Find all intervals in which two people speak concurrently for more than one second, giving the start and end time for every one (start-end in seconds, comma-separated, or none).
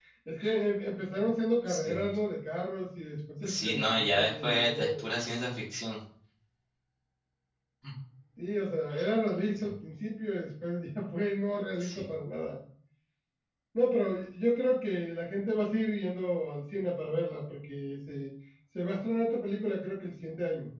3.4-5.0